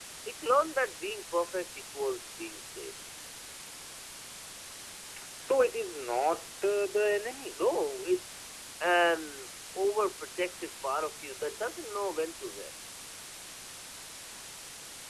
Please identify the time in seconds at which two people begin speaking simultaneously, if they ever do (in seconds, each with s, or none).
none